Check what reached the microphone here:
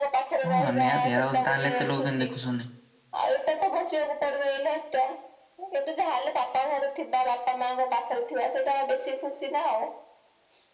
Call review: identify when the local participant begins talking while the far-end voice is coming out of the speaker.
1 s

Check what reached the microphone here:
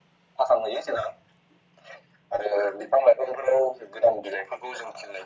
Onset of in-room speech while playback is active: none

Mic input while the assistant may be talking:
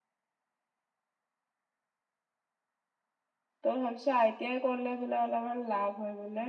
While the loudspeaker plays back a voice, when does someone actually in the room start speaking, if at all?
4 s

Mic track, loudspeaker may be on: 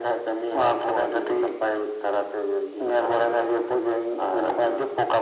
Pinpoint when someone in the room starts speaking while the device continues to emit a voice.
none

